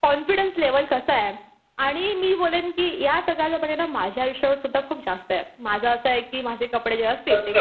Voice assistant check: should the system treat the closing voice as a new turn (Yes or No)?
Yes